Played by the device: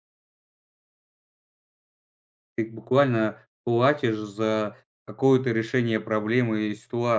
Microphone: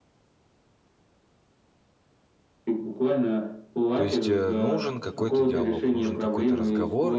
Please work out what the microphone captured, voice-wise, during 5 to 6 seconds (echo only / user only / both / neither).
both